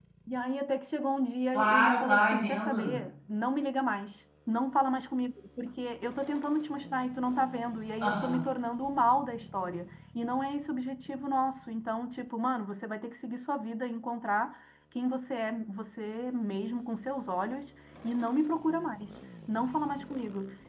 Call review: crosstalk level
present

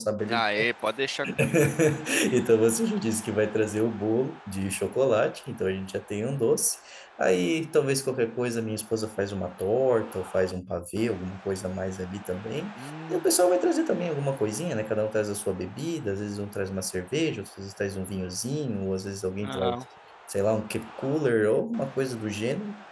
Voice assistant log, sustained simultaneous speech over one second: none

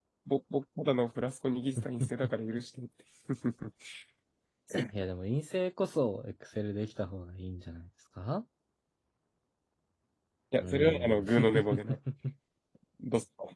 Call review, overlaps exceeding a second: present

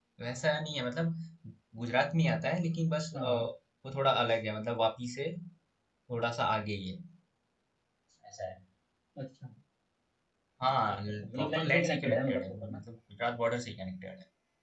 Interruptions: present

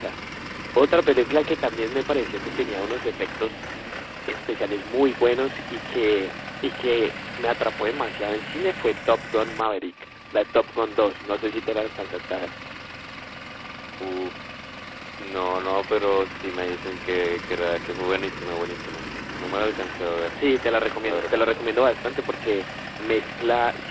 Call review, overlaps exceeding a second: none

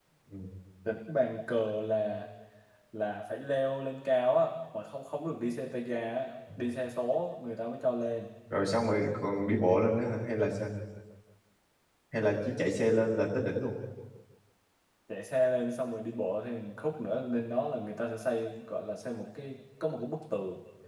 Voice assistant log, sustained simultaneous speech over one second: none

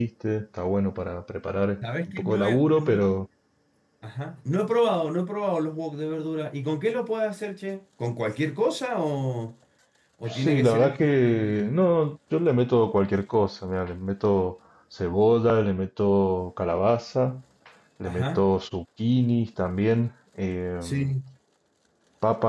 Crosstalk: present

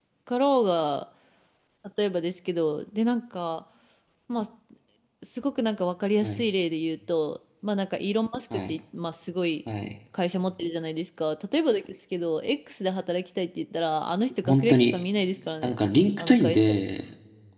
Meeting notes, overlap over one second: none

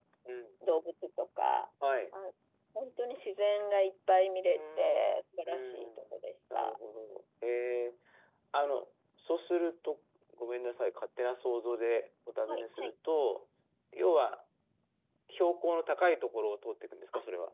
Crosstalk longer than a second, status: present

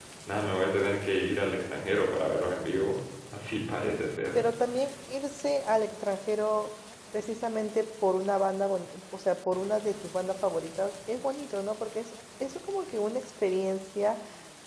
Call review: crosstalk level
none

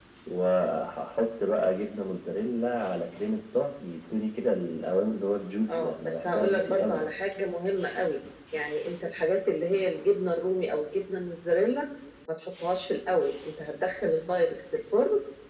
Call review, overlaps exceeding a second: present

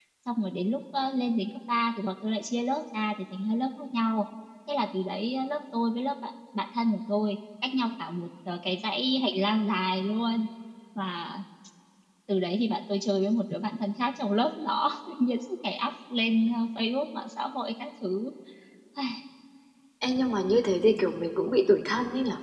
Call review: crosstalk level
none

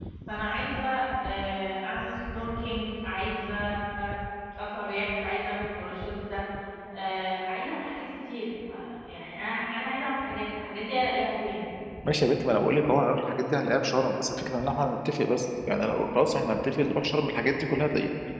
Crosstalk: none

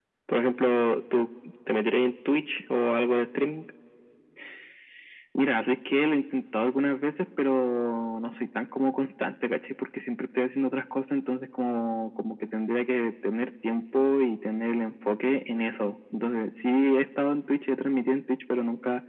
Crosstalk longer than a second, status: none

